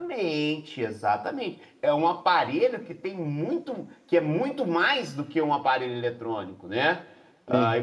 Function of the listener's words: listening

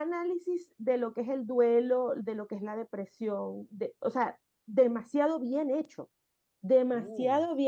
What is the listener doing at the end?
listening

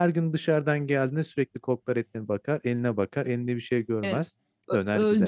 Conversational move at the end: taking over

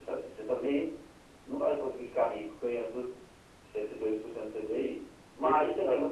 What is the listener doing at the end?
listening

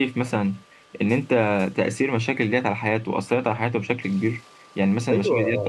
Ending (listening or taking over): taking over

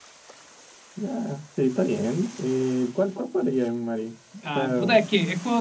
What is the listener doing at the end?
taking over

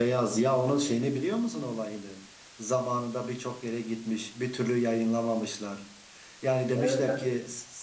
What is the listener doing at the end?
listening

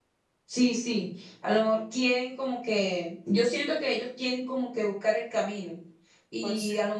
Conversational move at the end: listening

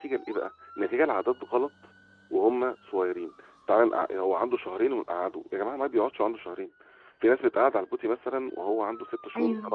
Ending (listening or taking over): listening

